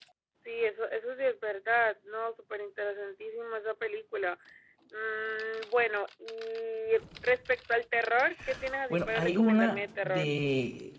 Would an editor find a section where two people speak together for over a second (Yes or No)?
Yes